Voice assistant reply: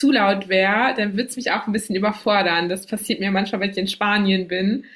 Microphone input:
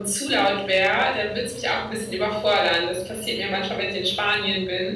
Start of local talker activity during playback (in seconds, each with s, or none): none